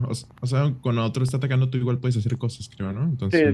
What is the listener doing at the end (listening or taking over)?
taking over